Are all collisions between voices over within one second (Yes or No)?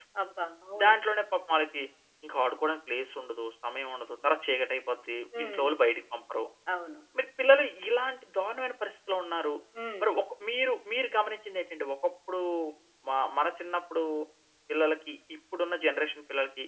Yes